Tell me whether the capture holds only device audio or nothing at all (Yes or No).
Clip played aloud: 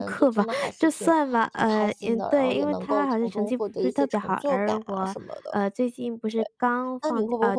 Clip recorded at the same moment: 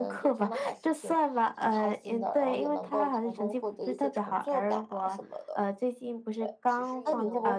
No